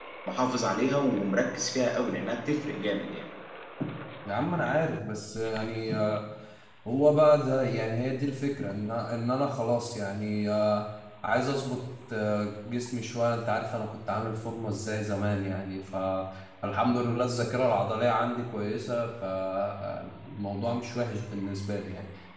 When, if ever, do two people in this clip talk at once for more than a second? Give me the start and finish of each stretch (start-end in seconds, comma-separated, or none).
none